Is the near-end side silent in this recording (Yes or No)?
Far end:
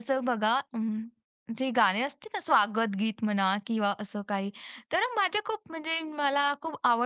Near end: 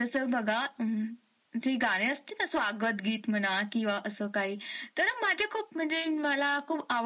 Yes